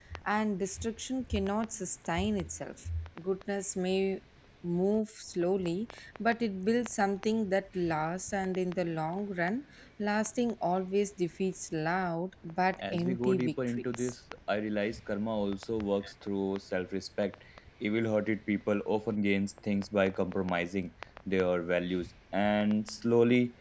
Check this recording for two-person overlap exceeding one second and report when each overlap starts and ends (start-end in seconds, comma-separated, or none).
12.8-14.1